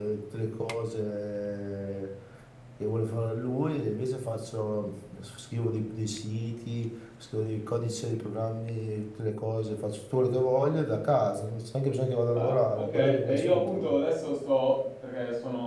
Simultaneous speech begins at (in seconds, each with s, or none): 12.3 s